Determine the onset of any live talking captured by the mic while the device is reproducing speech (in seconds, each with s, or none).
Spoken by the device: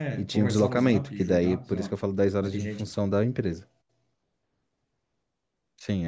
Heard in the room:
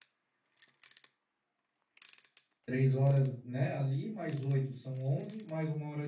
2.6 s